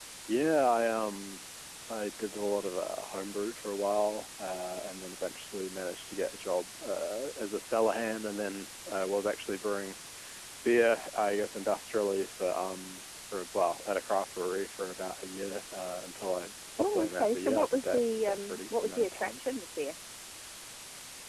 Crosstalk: present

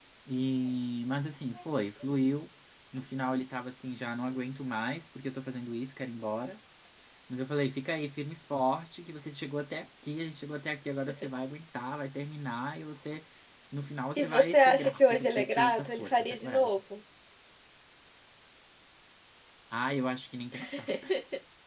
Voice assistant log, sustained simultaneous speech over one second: present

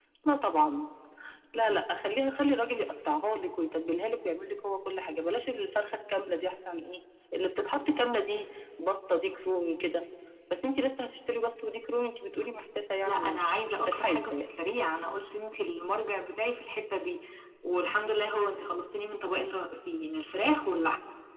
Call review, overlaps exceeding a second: present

